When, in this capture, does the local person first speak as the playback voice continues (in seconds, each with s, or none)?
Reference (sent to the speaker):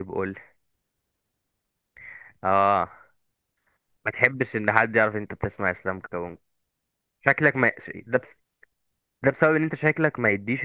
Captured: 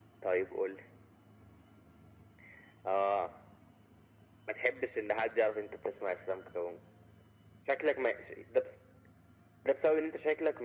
none